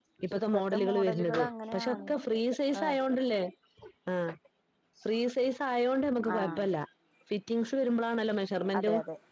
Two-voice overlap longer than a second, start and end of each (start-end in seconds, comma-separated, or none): 0.5-2.1